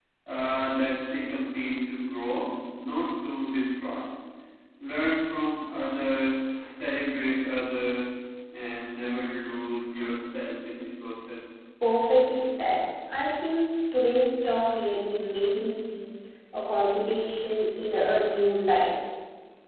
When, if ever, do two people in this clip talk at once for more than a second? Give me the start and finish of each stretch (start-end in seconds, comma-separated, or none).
none